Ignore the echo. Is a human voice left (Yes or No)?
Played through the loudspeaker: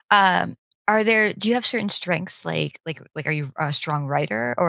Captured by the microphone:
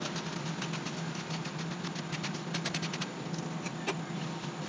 No